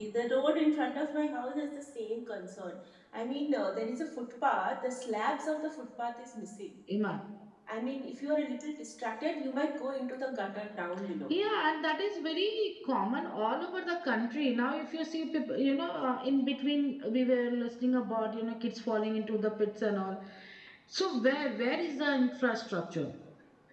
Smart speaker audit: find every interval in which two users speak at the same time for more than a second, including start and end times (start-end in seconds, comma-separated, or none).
none